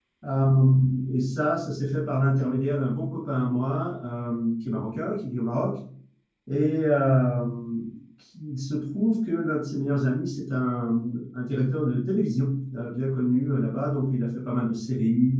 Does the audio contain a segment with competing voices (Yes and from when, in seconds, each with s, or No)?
No